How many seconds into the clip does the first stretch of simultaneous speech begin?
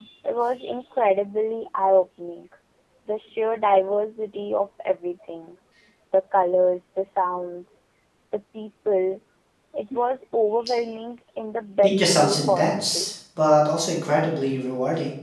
11.8 s

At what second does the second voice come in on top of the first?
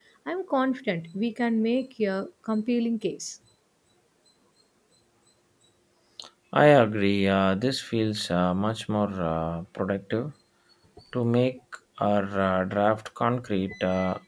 none

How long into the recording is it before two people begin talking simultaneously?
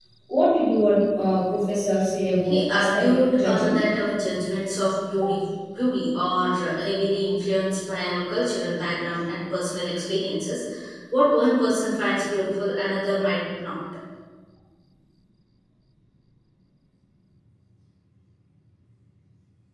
2.4 s

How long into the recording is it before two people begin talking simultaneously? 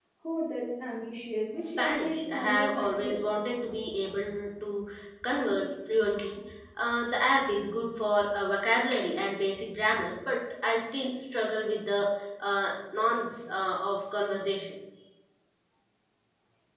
1.8 s

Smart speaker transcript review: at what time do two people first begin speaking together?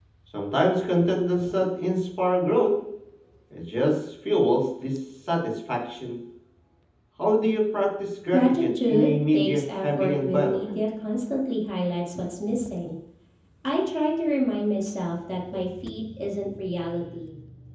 8.3 s

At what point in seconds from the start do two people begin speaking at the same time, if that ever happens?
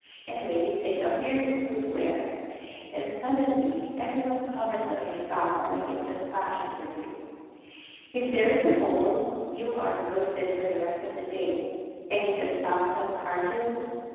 none

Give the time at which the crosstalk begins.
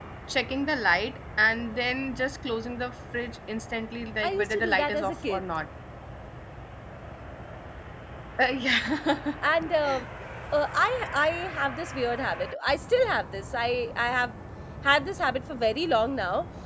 4.2 s

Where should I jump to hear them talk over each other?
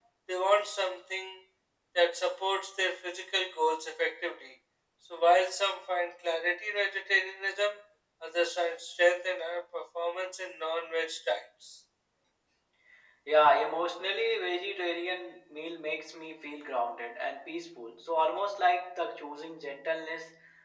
none

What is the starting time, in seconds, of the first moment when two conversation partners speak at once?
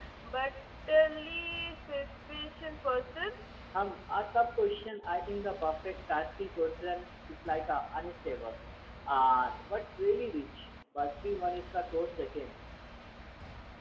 none

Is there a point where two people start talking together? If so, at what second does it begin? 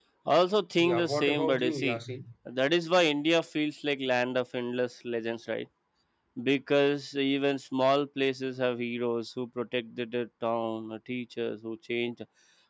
0.8 s

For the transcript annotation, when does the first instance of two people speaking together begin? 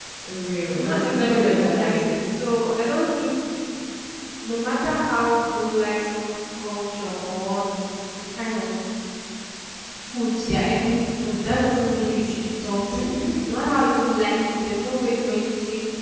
0.7 s

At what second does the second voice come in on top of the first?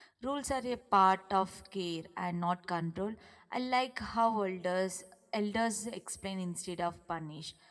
none

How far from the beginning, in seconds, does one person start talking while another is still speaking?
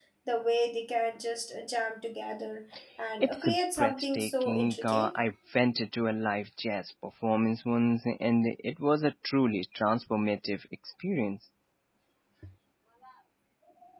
3.2 s

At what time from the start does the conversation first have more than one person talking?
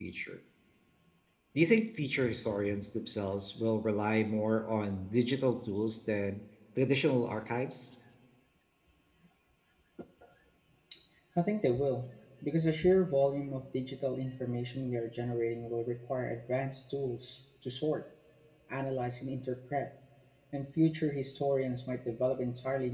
none

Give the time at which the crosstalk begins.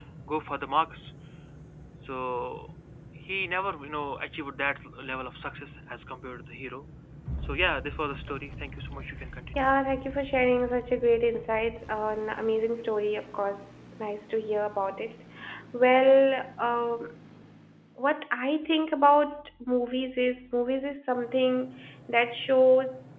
none

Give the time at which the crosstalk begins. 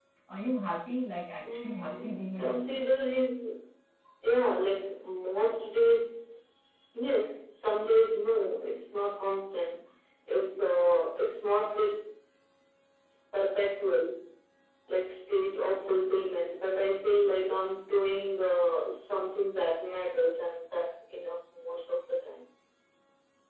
1.4 s

